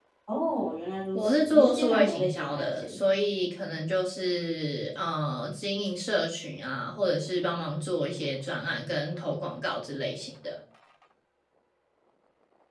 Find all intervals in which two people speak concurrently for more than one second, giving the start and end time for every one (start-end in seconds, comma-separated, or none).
1.1-3.0